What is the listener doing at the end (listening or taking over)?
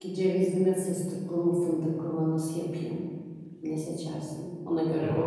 taking over